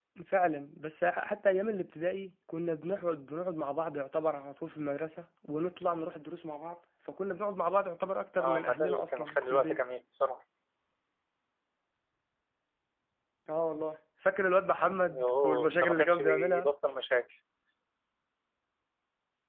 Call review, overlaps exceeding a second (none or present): present